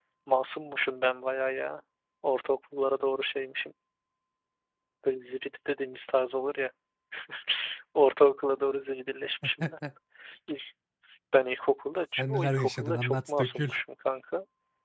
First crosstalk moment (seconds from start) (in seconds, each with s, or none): 12.2 s